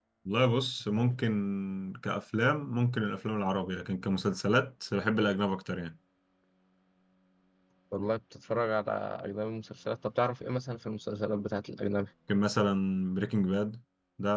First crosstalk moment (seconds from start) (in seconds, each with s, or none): none